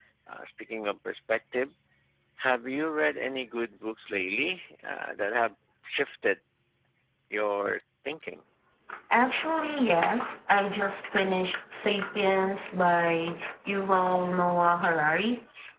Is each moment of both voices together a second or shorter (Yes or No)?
Yes